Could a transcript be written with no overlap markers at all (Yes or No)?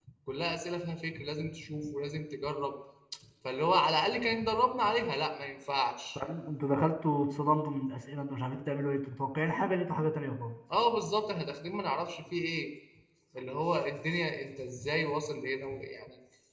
Yes